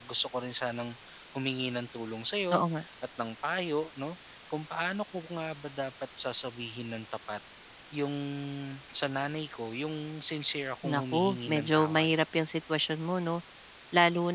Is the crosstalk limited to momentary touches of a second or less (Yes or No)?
No